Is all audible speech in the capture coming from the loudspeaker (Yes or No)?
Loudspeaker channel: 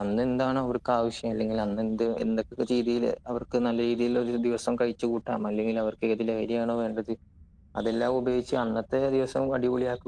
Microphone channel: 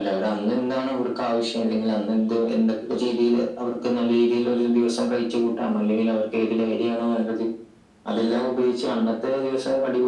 Yes